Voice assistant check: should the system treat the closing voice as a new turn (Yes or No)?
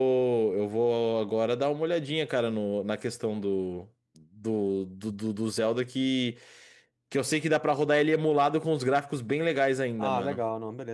Yes